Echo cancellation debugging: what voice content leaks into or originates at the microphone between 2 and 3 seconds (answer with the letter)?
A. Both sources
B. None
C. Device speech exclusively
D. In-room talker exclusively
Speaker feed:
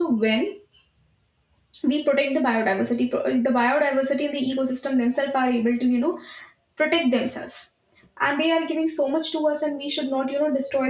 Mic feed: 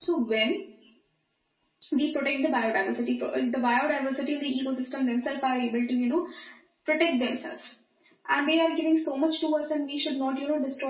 C